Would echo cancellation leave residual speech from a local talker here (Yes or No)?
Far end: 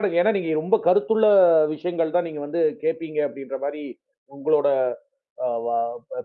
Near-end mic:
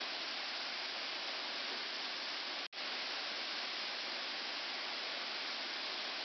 No